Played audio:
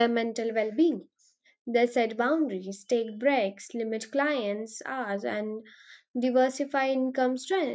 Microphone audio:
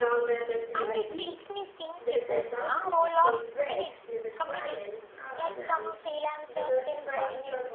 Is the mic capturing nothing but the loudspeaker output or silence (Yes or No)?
No